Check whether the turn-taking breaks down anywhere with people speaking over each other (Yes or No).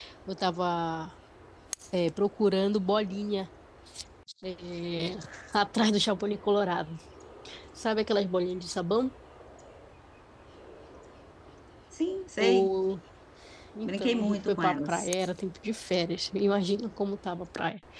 Yes